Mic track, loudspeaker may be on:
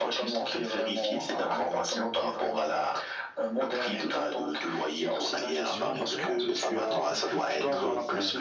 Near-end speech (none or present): present